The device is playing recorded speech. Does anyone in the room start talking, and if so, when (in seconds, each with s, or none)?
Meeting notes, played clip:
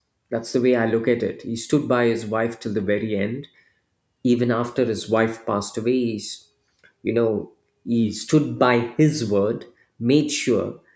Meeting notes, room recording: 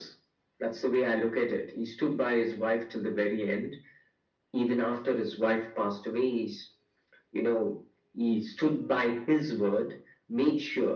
none